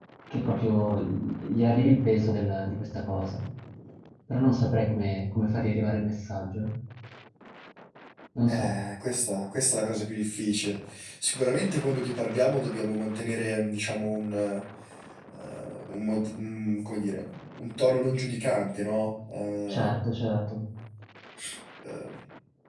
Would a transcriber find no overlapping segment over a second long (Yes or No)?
Yes